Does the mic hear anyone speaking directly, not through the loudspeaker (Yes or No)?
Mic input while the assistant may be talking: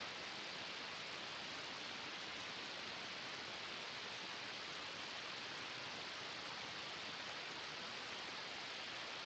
No